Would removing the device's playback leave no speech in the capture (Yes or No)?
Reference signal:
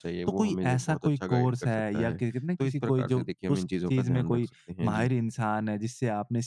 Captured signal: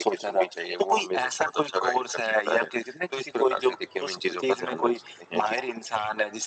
Yes